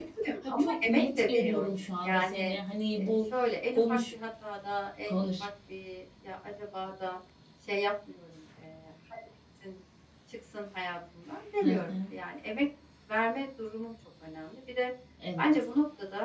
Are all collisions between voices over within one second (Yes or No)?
No